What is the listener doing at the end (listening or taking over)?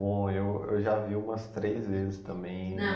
taking over